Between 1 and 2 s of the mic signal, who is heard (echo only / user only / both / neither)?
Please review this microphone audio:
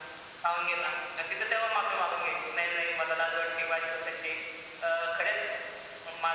echo only